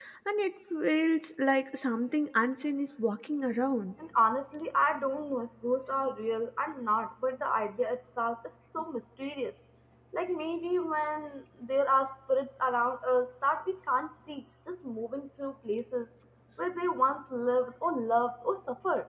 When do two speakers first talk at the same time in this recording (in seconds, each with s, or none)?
none